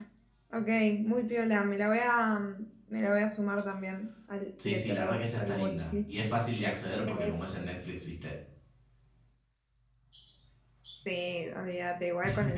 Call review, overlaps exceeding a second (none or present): present